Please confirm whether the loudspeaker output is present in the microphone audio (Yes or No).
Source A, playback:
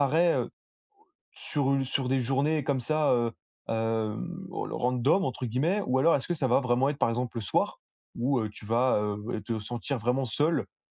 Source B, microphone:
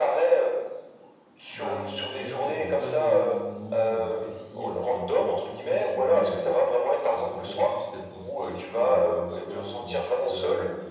Yes